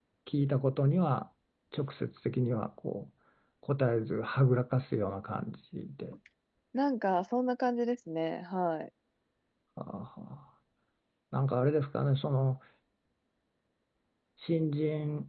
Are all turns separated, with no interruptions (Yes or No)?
Yes